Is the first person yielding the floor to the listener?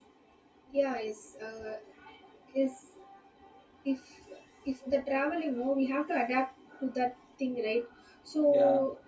No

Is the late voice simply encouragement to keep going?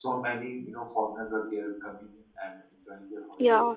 No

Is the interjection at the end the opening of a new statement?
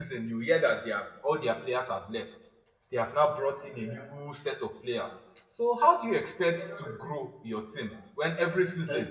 No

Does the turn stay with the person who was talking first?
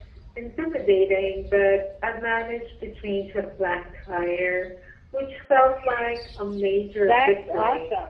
No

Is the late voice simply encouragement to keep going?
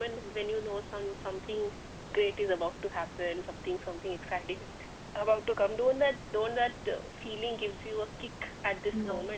No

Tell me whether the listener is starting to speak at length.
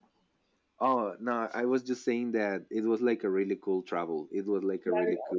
Yes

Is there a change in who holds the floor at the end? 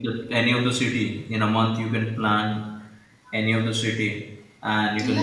No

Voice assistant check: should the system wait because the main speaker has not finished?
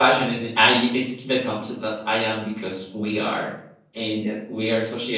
Yes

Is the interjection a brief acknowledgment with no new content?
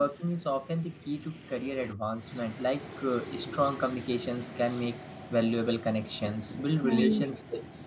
Yes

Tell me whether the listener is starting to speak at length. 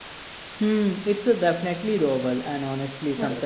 No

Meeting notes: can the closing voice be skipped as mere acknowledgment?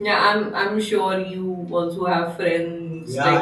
No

